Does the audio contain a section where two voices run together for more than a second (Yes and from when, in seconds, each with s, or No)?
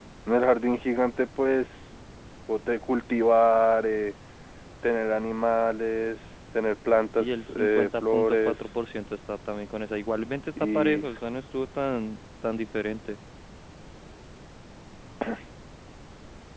Yes, from 7.2 s